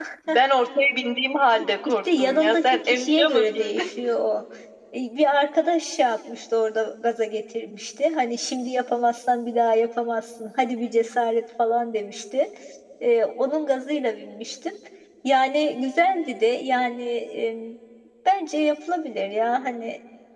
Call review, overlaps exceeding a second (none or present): present